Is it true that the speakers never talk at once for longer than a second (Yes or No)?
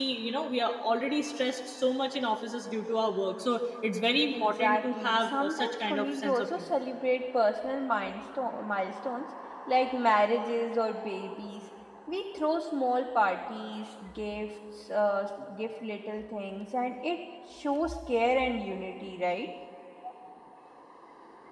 No